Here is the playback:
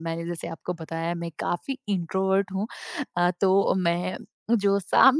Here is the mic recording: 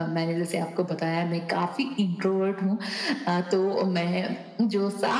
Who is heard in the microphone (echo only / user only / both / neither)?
echo only